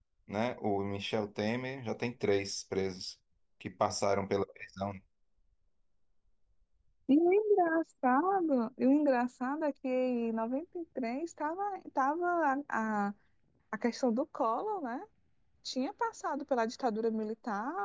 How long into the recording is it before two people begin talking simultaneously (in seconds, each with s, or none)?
none